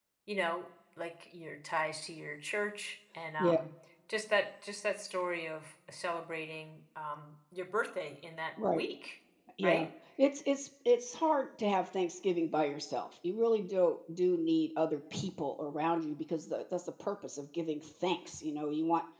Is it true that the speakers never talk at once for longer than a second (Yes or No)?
Yes